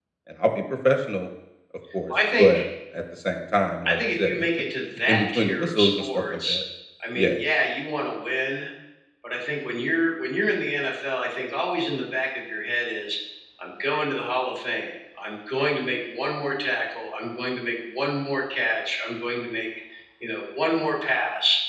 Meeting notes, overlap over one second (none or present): present